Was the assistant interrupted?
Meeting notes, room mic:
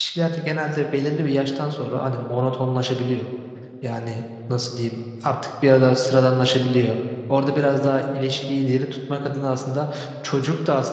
Yes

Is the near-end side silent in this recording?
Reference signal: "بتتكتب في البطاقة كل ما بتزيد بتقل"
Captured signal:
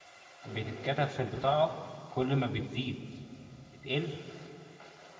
No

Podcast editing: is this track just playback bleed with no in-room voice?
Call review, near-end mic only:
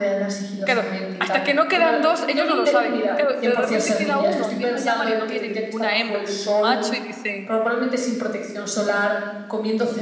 No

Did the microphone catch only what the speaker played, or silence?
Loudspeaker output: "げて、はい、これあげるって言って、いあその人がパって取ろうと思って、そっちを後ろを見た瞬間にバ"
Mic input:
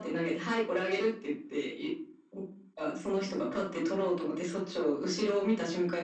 Yes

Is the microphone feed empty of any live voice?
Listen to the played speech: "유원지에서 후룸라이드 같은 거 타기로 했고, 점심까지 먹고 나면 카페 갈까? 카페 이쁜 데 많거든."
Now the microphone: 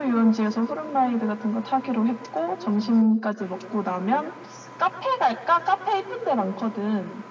Yes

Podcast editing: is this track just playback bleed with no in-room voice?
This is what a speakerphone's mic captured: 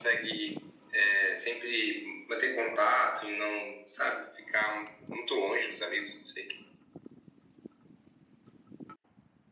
Yes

